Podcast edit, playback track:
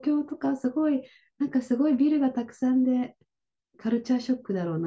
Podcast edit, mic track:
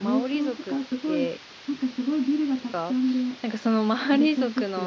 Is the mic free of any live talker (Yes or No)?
No